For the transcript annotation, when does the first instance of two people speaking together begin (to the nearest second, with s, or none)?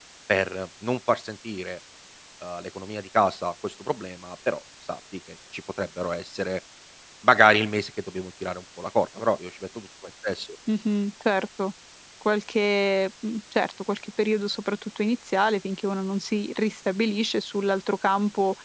none